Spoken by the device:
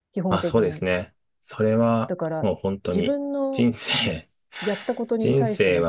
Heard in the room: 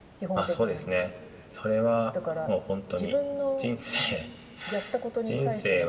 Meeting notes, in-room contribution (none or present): none